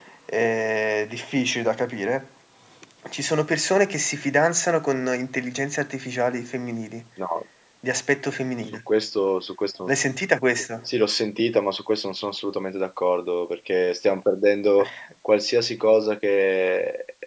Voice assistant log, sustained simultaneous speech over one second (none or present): none